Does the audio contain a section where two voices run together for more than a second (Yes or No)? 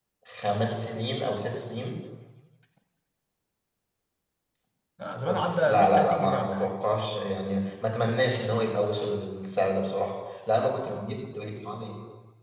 Yes